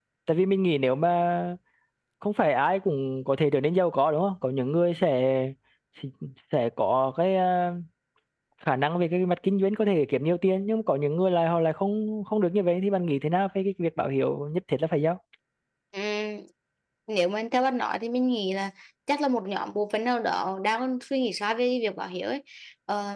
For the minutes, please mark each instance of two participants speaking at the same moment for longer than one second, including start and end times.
none

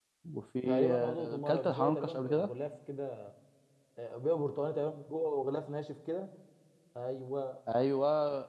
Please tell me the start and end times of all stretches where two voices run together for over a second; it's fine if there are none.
0.7-2.5

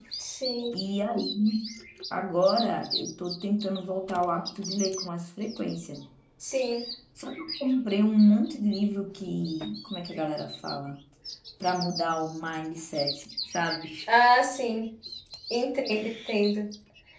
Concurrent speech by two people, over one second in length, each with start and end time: none

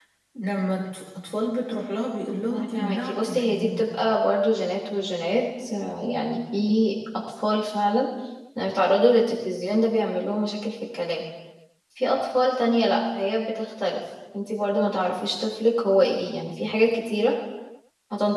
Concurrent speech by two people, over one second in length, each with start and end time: 2.5-3.9

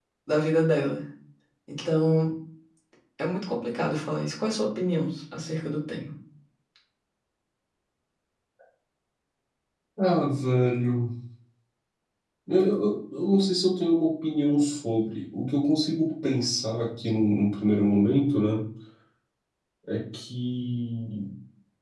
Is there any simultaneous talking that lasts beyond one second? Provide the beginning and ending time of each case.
none

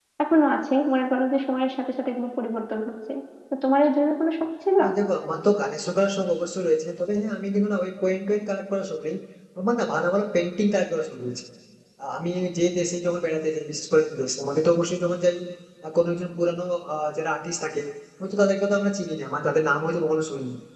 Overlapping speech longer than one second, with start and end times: none

